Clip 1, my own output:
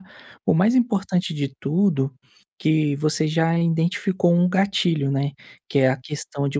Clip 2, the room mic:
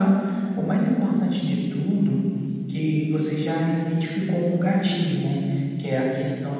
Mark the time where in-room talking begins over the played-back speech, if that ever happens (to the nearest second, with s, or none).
none